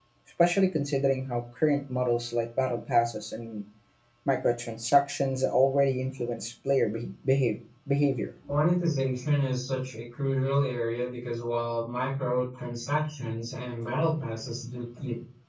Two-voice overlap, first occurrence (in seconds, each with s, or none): none